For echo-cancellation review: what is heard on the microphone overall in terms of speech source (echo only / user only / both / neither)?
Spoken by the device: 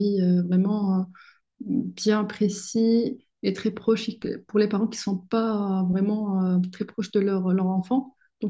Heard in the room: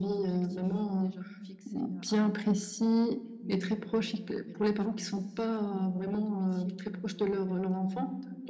both